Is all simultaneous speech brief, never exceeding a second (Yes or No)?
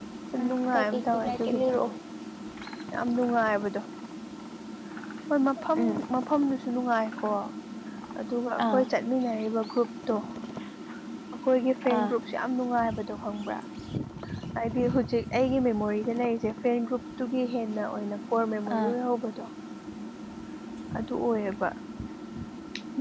No